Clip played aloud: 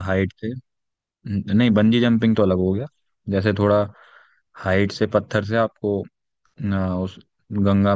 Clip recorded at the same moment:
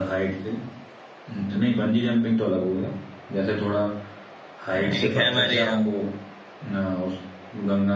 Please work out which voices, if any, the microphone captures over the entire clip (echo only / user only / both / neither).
both